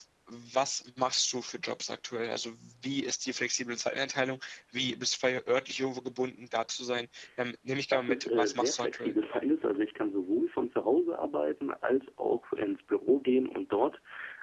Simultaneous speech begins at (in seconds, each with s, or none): 7.9 s